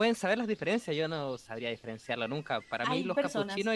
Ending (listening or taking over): listening